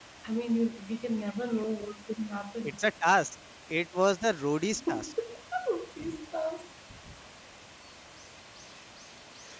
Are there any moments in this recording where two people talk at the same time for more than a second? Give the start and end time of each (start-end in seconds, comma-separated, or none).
none